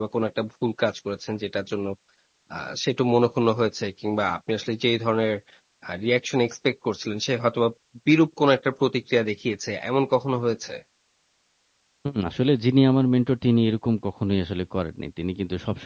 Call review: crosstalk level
none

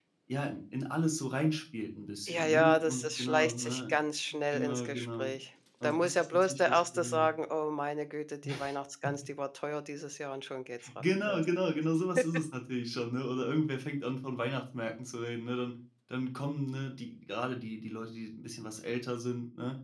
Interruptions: present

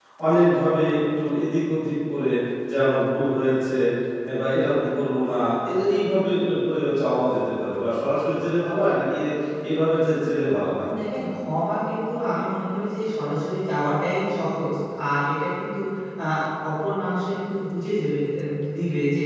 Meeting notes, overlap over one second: none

